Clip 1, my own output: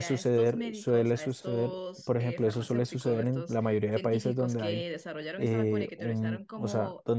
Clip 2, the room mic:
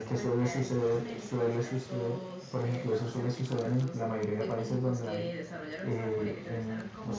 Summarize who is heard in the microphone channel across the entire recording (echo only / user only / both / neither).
echo only